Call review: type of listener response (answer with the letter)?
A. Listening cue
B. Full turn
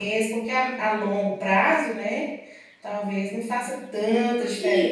B